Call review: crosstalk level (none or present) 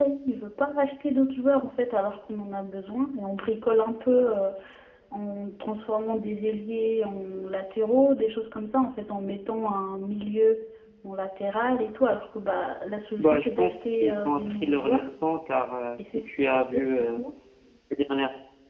present